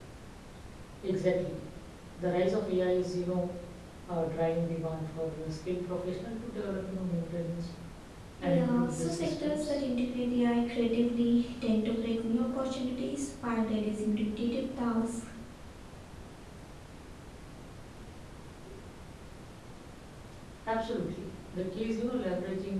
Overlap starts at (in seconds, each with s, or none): 8.4 s